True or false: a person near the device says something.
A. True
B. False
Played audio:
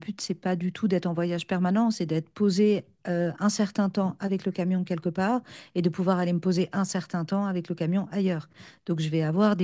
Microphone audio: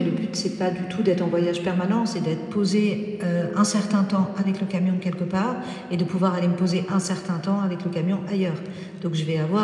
B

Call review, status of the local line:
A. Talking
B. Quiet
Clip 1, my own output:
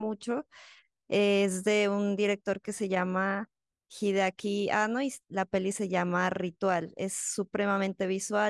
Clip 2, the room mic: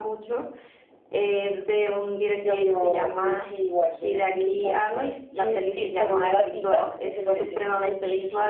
A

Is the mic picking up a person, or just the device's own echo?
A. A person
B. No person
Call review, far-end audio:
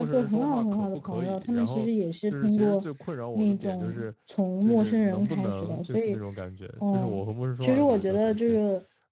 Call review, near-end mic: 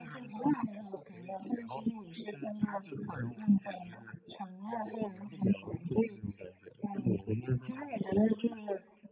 B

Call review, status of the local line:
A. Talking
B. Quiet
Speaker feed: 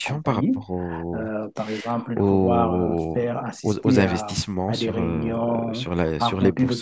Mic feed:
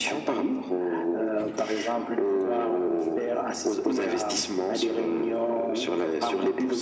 B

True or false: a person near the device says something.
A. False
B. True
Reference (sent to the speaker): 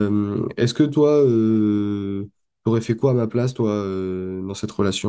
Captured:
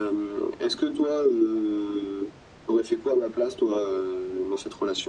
A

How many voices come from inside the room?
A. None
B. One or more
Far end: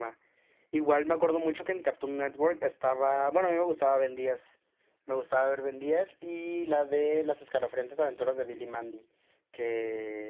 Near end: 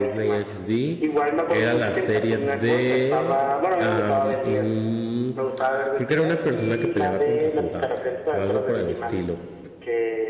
B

